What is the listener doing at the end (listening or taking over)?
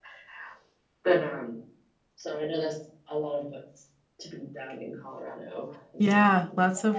taking over